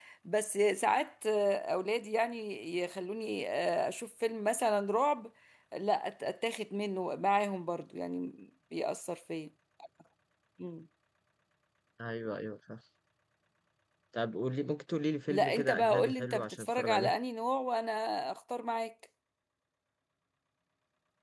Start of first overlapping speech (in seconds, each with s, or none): 15.3 s